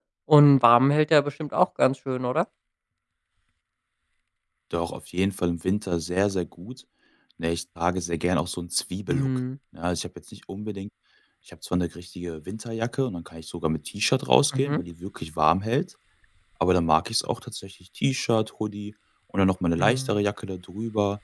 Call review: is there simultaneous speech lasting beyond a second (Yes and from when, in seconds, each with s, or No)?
No